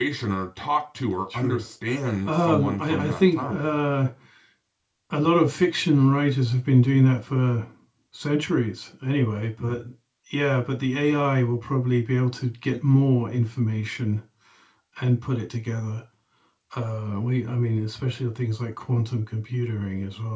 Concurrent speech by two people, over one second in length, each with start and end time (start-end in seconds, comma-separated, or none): 2.2-3.6